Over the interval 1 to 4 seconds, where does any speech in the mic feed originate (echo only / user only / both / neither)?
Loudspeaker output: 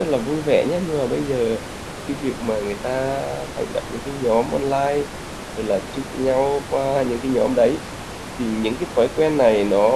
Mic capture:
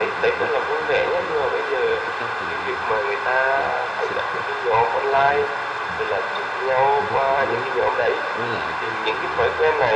both